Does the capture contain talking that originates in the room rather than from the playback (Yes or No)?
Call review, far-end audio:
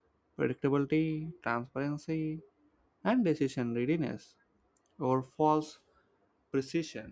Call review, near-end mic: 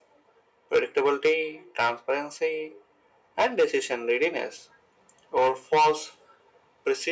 No